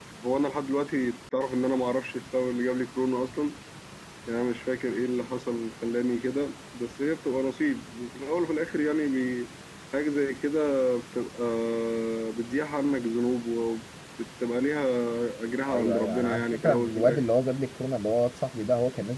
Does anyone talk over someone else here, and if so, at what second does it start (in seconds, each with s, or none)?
15.7 s